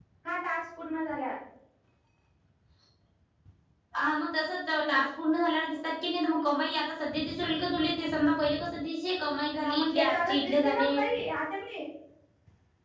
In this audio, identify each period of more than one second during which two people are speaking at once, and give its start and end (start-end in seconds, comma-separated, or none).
9.6-10.9